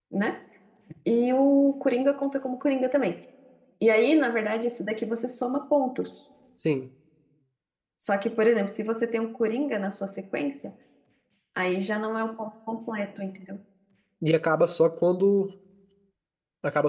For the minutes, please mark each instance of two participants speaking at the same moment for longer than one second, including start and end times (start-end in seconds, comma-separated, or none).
none